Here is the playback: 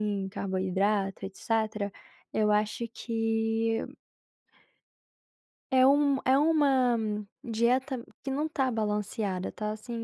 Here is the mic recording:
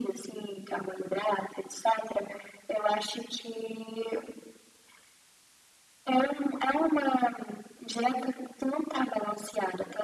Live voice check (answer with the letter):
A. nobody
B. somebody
A